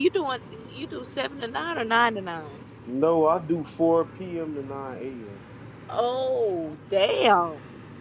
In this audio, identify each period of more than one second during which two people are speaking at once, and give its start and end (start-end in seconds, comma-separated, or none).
none